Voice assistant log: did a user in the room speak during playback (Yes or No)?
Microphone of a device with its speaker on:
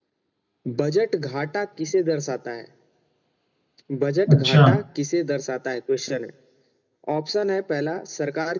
Yes